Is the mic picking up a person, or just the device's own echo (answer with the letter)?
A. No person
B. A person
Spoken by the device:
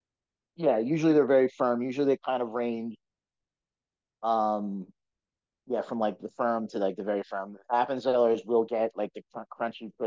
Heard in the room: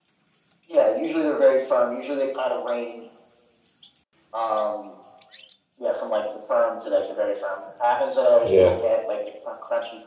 B